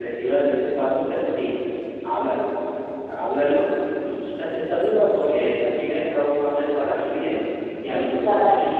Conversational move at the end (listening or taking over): listening